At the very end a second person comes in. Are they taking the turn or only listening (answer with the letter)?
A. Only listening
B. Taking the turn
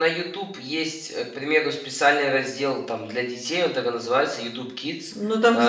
B